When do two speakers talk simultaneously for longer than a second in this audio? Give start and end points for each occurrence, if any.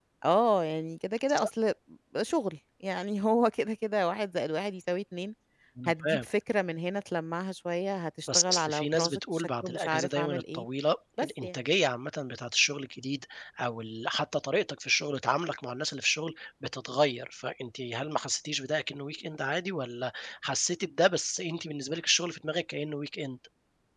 8.3-10.6

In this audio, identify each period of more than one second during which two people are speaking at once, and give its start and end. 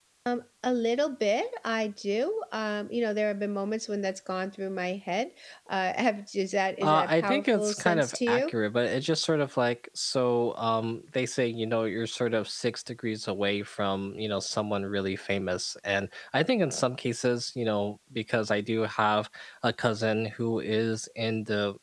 6.8-8.5

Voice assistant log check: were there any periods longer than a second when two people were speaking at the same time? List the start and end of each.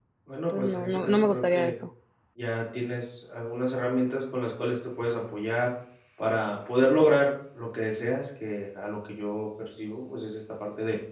0.5-1.7

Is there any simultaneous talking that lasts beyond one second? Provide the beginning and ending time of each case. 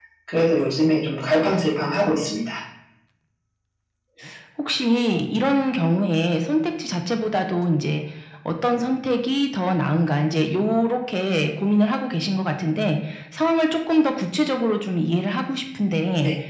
none

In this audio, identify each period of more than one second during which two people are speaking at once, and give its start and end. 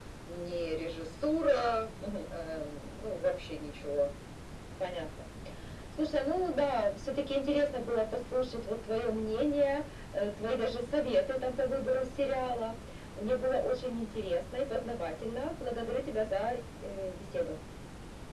none

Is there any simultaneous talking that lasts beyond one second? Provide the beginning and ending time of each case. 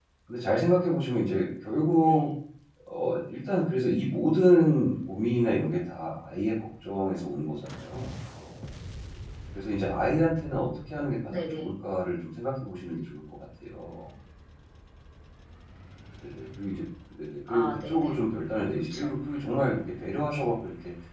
none

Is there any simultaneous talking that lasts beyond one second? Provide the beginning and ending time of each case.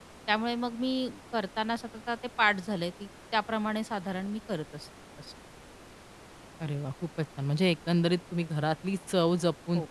none

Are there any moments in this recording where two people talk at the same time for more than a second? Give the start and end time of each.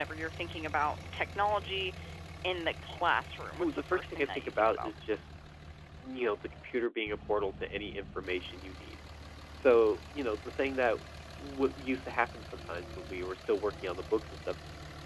3.6-4.9

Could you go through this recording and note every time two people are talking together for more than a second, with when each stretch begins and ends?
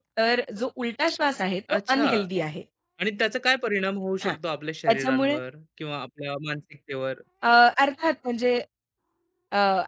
none

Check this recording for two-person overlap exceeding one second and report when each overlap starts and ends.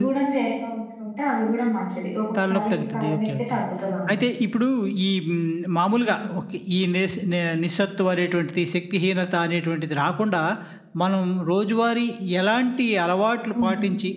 2.4-3.6

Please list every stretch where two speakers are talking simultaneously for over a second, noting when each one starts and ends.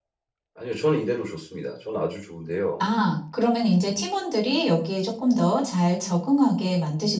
none

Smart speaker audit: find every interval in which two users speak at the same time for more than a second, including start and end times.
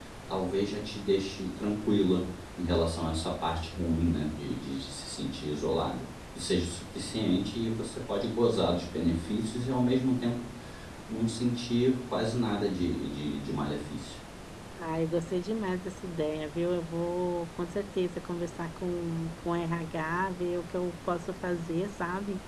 none

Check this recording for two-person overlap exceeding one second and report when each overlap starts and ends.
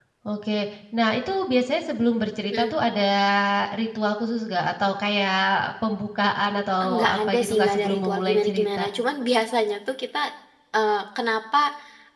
6.8-8.9

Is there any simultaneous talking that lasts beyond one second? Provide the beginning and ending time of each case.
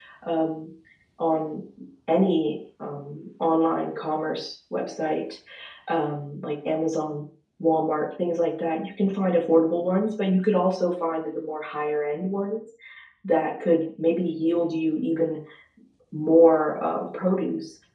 none

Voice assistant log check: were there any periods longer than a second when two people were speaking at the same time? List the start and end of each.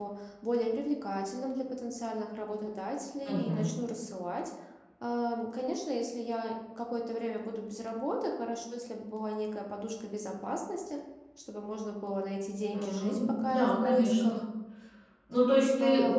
12.7-14.4

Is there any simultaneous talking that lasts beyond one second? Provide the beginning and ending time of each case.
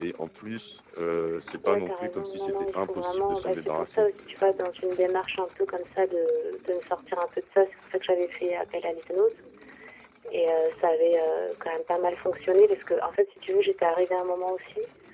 1.6-4.0

